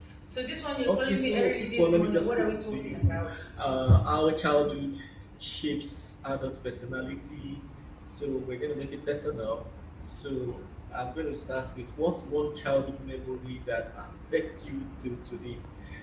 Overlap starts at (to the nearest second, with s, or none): 1 s